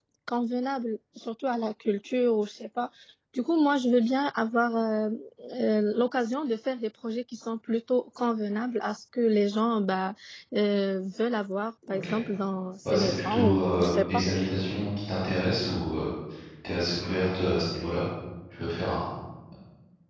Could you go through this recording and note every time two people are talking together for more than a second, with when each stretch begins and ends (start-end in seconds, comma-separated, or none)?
12.9-14.2